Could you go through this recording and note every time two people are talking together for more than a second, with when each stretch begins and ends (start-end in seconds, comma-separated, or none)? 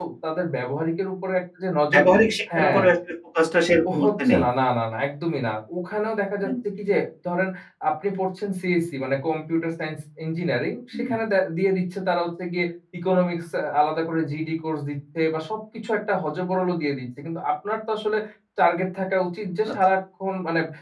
none